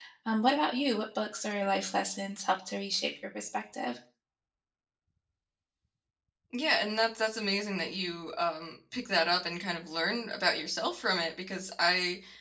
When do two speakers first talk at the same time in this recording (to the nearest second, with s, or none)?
none